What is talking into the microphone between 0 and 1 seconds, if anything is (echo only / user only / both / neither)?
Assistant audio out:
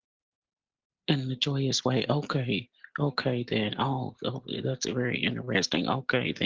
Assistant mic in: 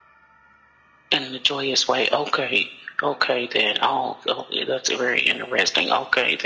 neither